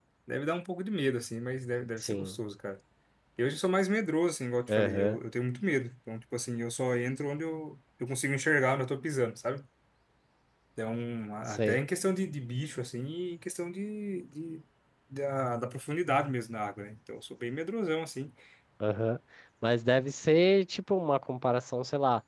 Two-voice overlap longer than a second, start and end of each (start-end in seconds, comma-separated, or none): none